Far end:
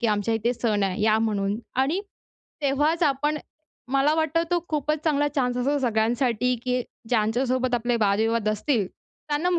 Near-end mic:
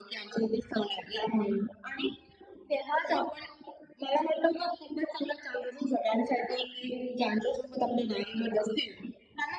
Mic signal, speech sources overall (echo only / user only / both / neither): echo only